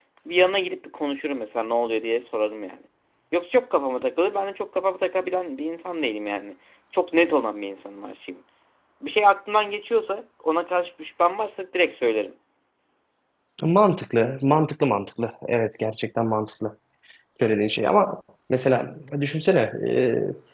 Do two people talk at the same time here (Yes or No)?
No